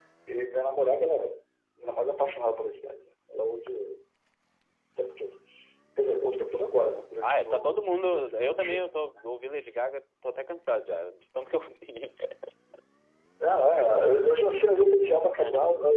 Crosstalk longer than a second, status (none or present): present